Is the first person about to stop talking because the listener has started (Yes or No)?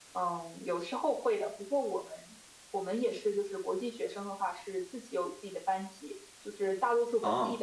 No